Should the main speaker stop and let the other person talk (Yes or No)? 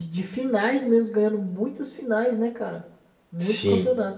Yes